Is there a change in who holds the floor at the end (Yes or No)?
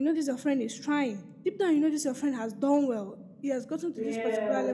No